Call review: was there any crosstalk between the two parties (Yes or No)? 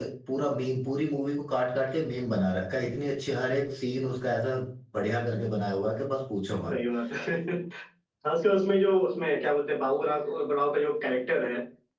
No